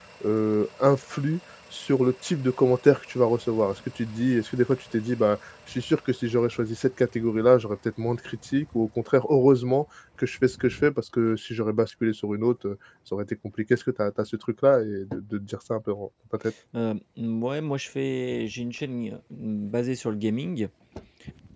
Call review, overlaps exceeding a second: none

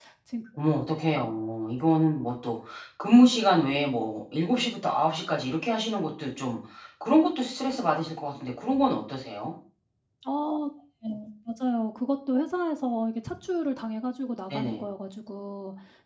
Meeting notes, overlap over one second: none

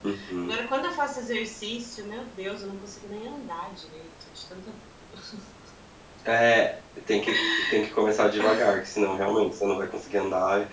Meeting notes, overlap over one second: none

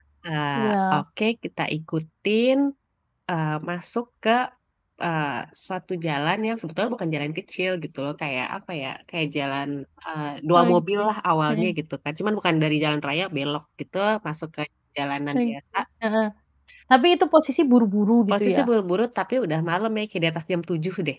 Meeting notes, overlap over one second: none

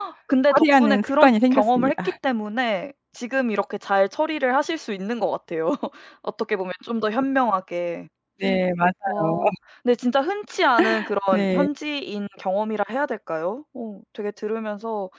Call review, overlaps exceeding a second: present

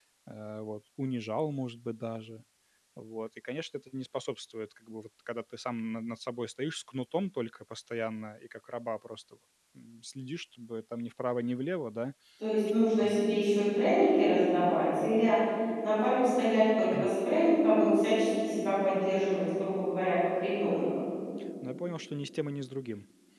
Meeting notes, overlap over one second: none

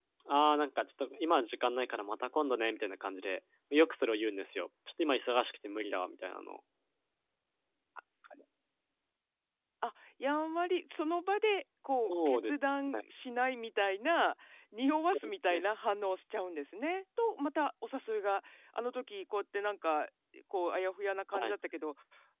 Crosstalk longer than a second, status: none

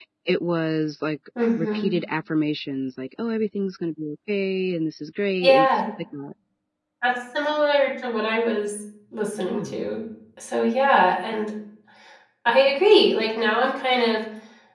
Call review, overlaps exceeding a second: none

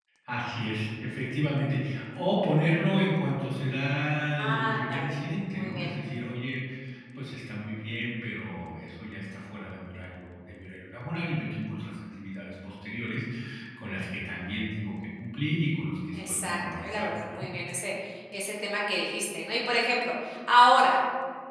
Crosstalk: present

